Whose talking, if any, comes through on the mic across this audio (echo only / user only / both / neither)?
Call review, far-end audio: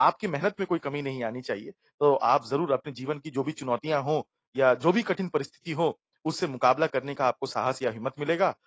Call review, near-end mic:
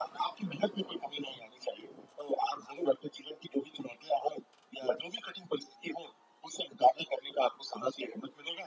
echo only